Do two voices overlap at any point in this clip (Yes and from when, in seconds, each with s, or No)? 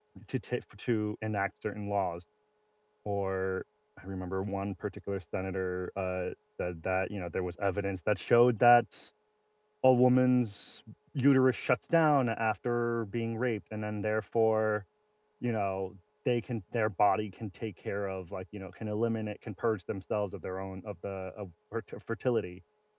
No